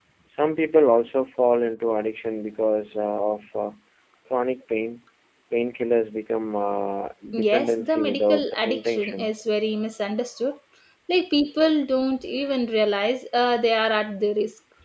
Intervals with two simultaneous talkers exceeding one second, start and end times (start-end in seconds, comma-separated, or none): 7.3-9.3